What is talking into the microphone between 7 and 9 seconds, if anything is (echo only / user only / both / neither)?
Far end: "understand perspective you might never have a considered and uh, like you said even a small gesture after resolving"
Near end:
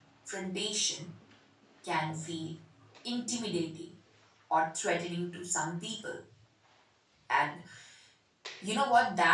user only